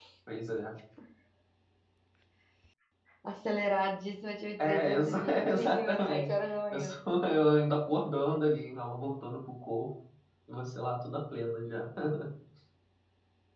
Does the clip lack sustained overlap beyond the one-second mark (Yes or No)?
No